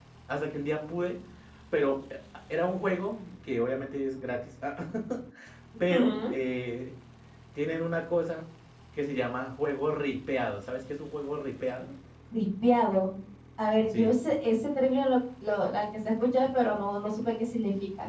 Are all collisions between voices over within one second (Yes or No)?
Yes